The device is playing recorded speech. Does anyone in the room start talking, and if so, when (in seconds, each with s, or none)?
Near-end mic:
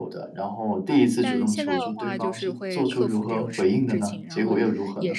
1.0 s